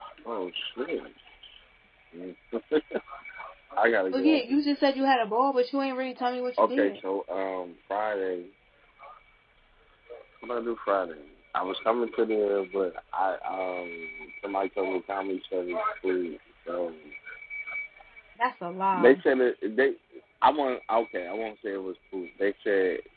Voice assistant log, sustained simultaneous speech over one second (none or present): none